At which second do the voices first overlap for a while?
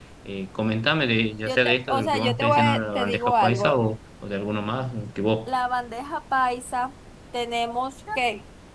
1.4 s

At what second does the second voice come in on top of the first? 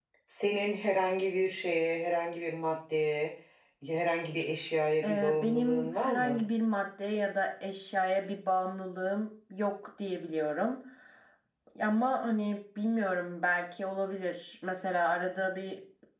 5.0 s

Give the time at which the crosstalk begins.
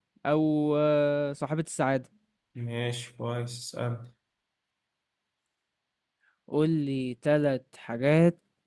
none

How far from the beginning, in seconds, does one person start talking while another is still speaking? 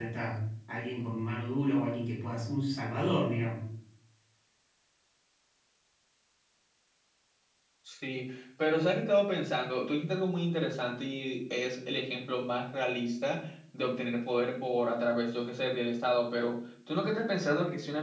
none

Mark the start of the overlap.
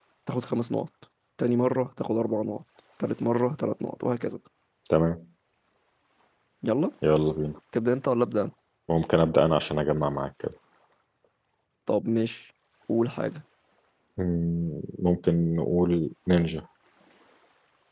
none

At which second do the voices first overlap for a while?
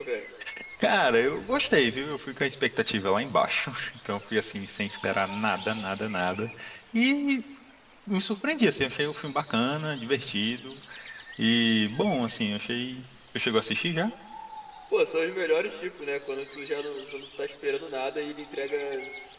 none

